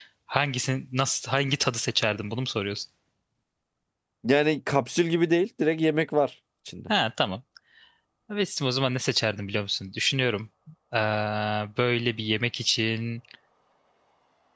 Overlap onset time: none

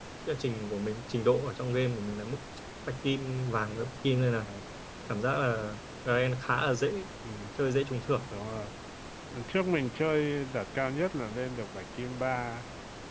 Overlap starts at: none

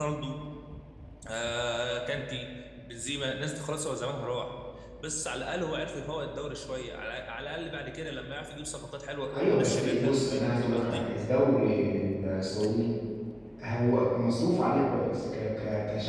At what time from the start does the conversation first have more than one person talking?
9.3 s

